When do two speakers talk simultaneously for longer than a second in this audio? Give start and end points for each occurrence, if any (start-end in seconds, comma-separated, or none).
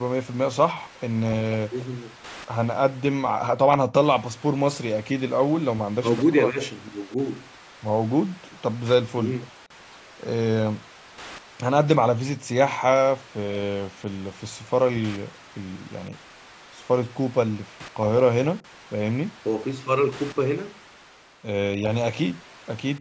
none